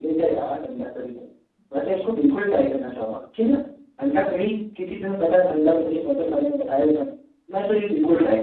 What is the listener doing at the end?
listening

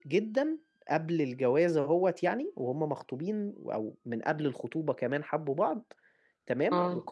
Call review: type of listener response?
listening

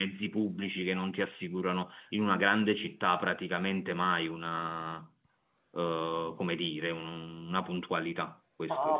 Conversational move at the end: taking over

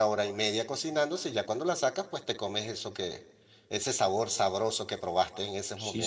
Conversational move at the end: taking over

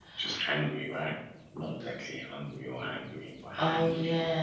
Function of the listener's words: taking over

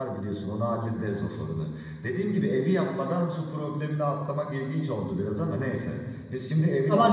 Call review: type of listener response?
taking over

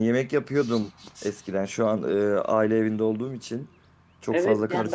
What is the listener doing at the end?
taking over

